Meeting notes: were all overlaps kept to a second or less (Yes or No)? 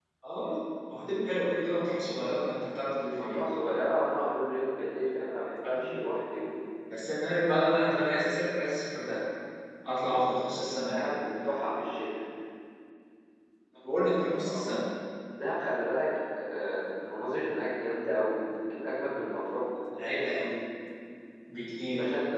Yes